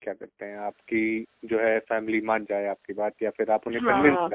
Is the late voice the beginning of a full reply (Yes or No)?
Yes